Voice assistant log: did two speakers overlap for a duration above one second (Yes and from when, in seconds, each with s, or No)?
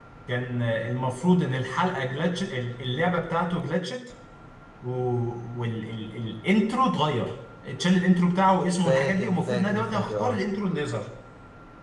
Yes, from 8.7 s